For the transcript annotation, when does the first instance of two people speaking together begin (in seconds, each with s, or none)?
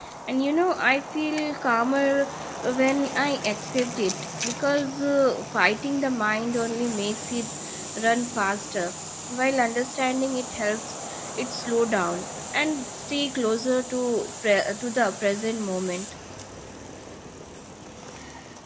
none